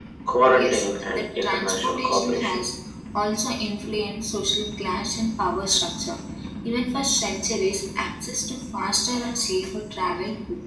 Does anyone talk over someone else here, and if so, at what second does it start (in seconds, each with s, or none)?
0.5 s